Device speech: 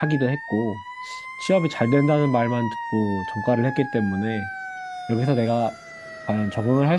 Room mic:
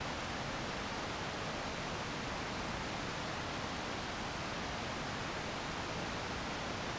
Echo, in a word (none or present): none